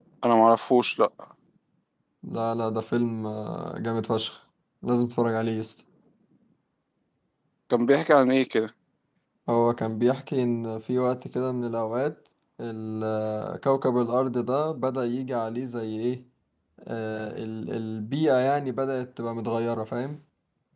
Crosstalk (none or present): none